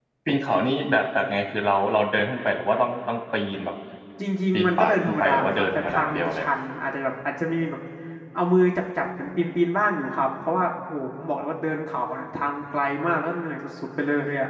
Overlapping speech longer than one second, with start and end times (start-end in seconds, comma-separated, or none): 4.5-6.5